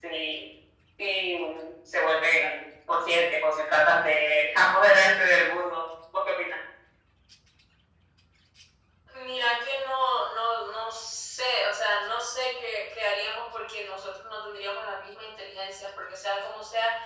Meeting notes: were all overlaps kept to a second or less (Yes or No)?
Yes